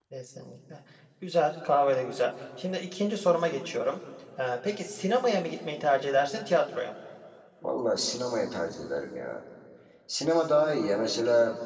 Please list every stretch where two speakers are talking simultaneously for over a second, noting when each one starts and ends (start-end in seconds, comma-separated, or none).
none